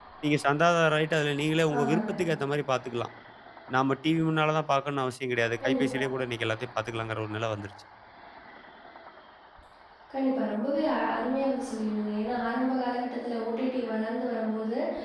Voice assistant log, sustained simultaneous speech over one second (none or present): none